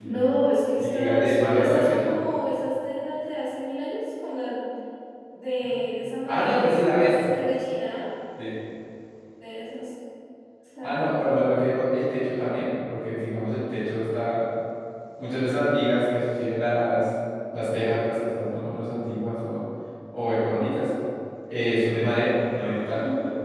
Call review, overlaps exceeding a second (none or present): present